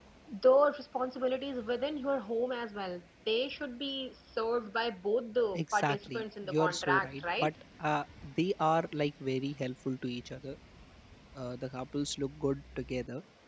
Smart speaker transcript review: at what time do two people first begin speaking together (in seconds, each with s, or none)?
5.5 s